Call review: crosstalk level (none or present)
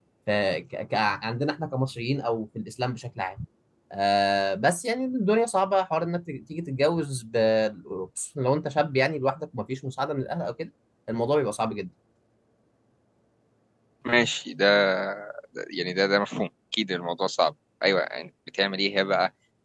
none